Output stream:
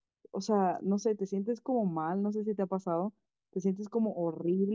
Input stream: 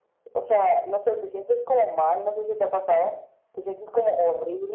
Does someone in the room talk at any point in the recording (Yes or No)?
No